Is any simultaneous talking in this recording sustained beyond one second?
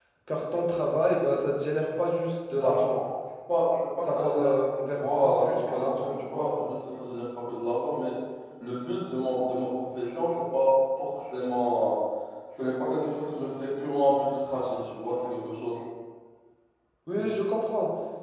Yes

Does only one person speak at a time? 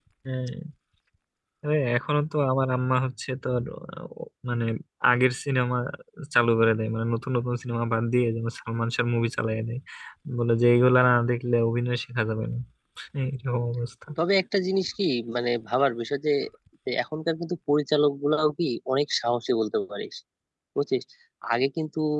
Yes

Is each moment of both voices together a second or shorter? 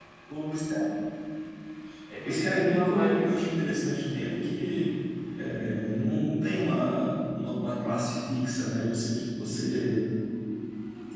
No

